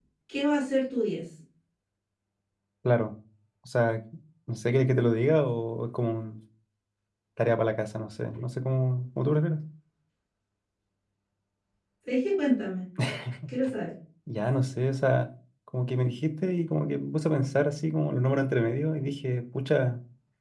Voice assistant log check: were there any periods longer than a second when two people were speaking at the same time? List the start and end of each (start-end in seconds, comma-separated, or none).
none